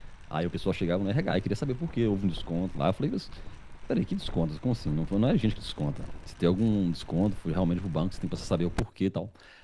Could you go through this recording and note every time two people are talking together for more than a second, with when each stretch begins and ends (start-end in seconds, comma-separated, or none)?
none